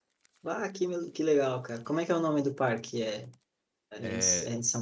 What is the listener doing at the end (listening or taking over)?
listening